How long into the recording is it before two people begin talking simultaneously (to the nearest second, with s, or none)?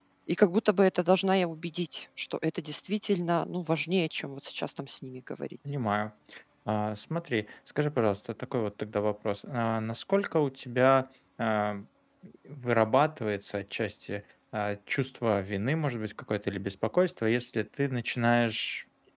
none